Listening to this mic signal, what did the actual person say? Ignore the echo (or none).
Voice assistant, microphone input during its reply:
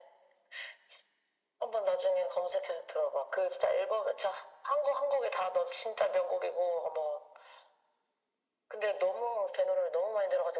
none